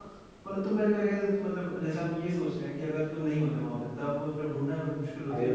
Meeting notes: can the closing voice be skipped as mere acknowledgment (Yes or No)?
No